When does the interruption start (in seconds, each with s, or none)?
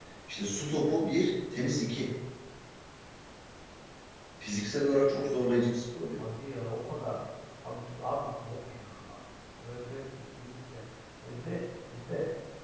none